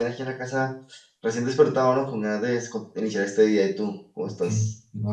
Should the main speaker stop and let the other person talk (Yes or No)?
Yes